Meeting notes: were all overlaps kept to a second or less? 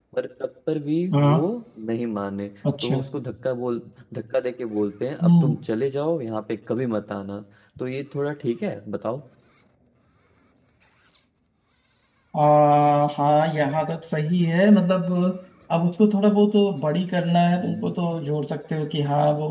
Yes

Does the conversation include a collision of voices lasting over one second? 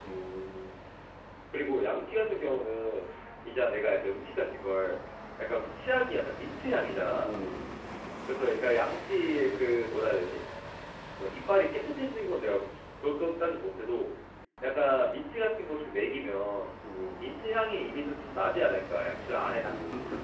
No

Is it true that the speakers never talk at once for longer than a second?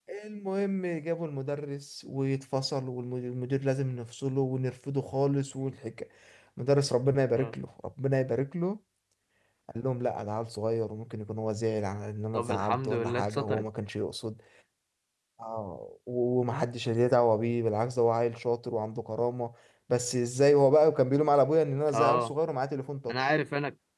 No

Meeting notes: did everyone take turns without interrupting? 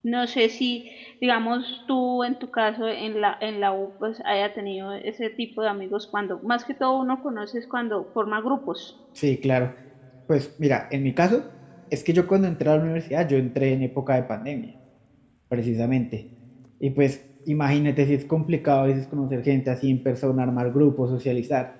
Yes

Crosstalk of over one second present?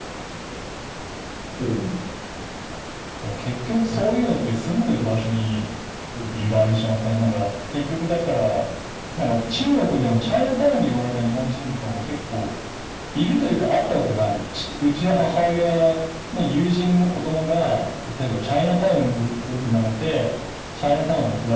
No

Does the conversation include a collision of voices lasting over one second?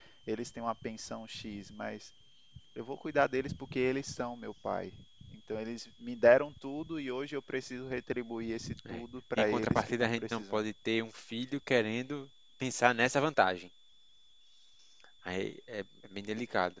Yes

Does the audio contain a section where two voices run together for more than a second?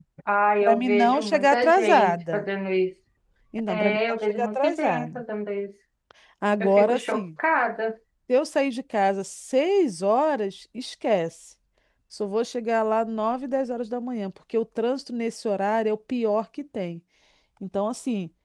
Yes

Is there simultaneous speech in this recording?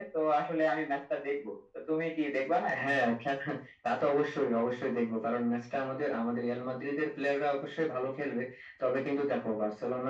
No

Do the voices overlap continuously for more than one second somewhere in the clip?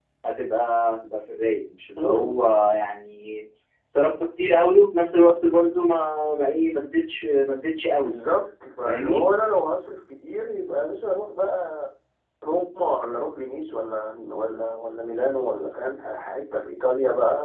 No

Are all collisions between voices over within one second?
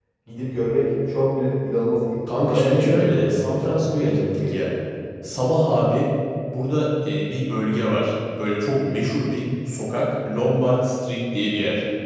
No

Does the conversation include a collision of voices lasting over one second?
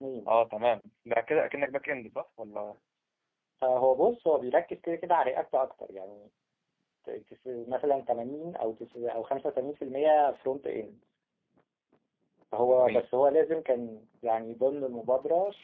No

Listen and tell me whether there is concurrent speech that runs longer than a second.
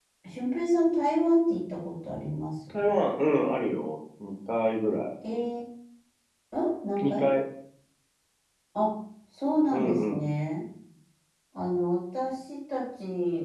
No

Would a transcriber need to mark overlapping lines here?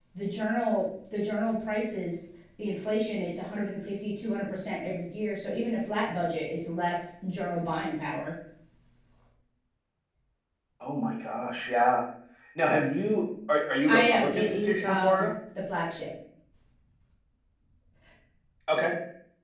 Yes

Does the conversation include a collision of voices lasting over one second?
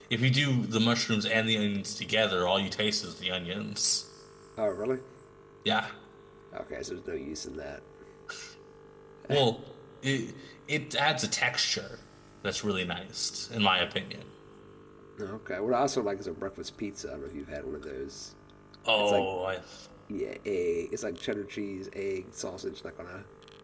No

